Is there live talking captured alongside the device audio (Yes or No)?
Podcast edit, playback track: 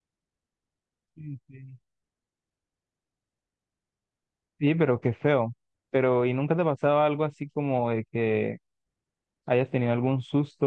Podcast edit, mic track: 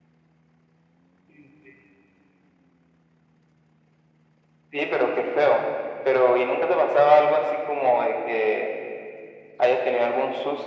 No